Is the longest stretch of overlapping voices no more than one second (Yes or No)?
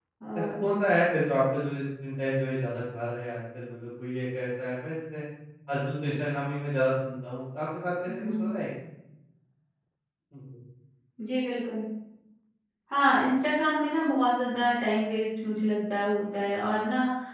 Yes